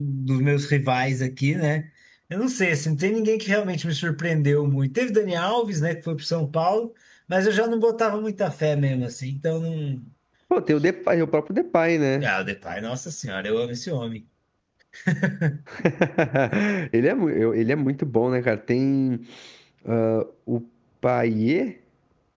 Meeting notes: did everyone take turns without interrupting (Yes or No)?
Yes